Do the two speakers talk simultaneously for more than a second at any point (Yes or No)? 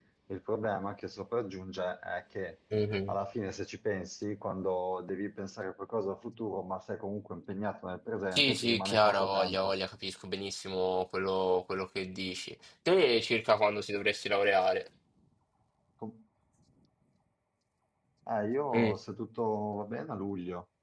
Yes